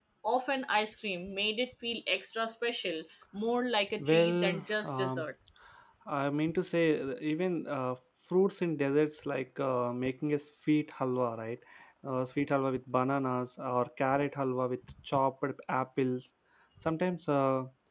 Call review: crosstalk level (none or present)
present